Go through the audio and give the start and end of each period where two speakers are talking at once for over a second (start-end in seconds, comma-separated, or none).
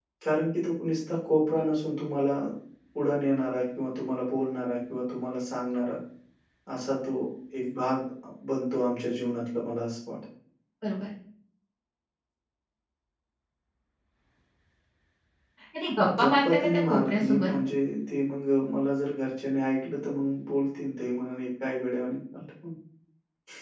16.2-17.5